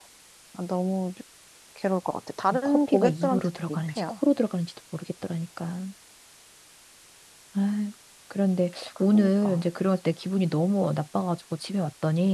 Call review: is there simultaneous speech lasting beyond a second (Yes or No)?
Yes